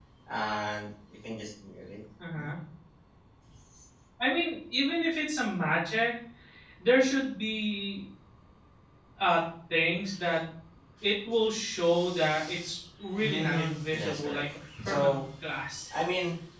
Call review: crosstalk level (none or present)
present